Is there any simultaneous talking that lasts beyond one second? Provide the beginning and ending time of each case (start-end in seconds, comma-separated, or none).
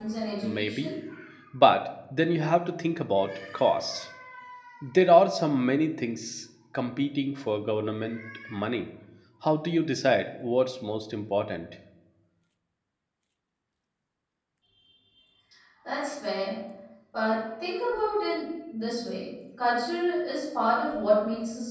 none